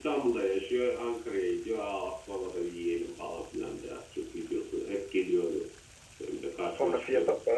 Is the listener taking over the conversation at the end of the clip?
Yes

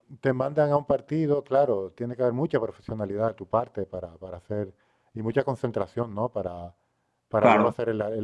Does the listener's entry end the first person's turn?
No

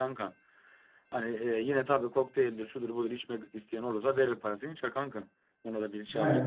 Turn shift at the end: Yes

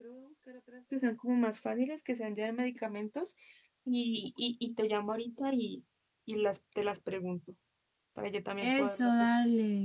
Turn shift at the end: Yes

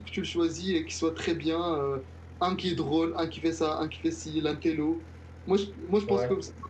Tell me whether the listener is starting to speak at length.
No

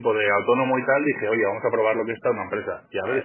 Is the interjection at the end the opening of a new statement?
No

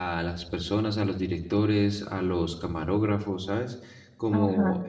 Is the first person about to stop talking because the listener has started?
No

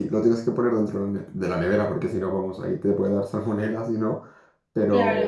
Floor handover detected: No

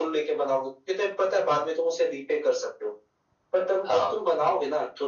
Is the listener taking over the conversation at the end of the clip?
No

